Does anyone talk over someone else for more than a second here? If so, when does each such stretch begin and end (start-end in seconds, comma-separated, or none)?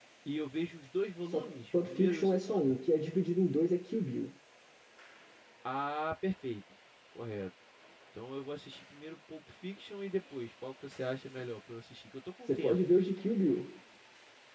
1.2-2.7